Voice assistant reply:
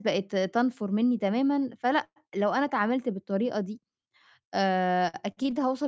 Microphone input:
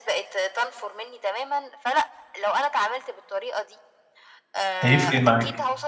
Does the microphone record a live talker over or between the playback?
Yes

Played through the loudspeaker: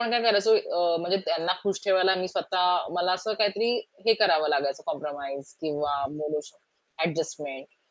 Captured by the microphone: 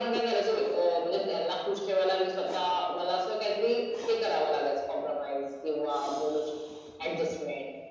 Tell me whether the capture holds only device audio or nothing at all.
Yes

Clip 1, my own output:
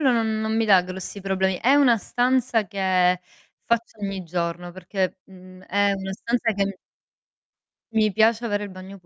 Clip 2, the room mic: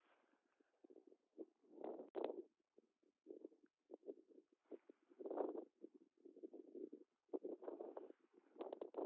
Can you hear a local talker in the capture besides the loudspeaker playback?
No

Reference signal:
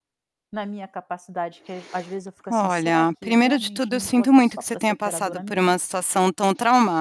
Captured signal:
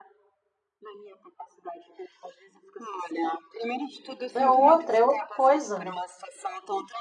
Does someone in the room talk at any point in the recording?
Yes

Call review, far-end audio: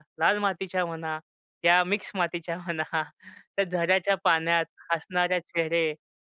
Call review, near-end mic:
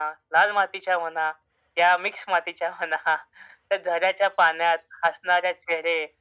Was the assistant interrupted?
No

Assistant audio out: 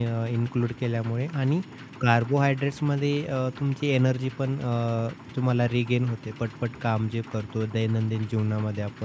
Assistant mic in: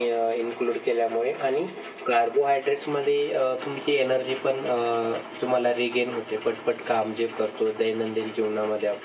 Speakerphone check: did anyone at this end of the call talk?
No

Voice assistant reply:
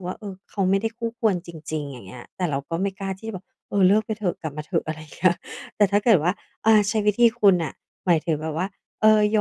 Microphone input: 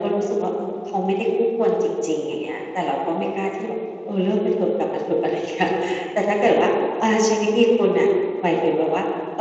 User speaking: No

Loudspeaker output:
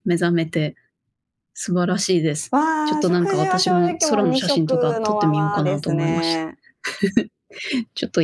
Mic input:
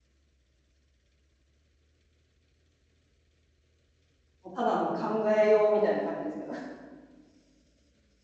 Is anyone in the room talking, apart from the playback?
Yes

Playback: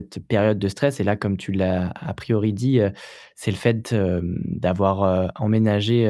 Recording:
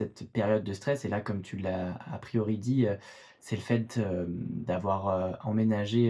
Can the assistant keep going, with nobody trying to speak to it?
Yes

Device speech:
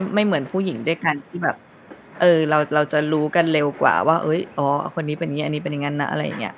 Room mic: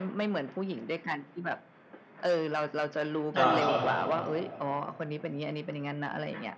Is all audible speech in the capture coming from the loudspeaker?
No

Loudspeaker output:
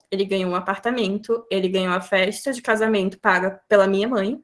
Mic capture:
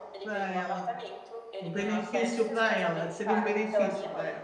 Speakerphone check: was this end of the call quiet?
No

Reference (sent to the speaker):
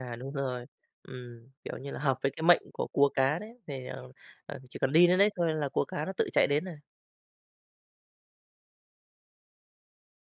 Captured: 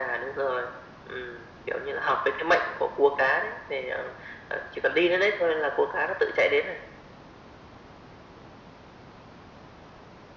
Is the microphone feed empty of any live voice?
Yes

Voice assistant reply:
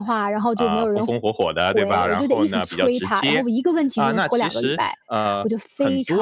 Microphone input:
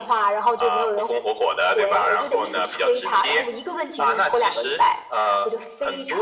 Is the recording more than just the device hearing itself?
No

